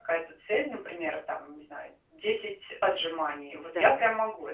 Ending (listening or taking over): taking over